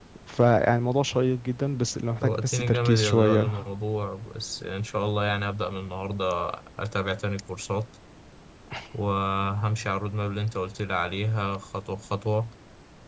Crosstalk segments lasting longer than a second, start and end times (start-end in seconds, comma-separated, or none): 2.2-3.6